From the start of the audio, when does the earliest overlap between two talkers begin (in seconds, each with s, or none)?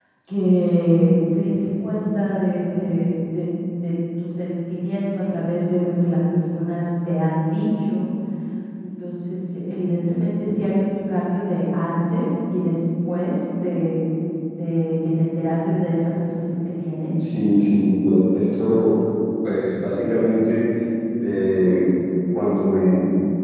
none